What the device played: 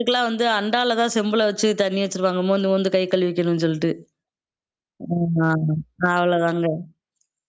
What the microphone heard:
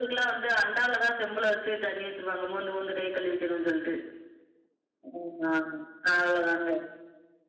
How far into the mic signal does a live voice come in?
none

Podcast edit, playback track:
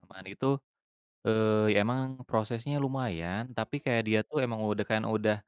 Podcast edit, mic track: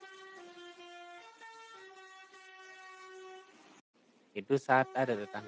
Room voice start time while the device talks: 4 s

